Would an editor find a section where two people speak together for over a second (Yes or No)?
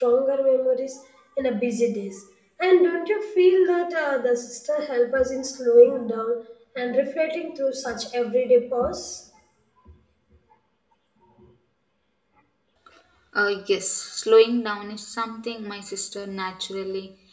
No